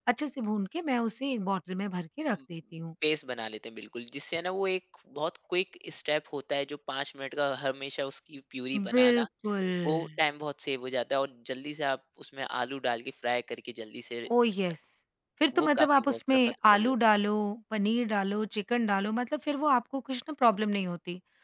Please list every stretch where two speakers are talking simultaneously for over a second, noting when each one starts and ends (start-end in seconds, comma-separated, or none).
15.6-16.9